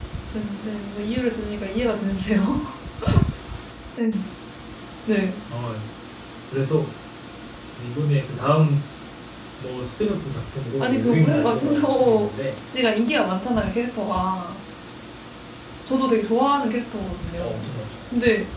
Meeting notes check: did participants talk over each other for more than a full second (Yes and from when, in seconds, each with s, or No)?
Yes, from 10.8 s